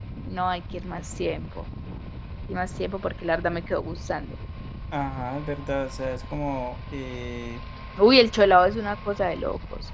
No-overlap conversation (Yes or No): Yes